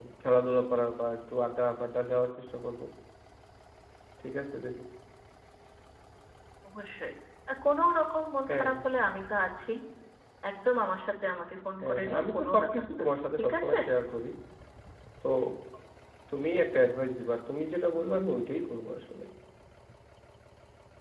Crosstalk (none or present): present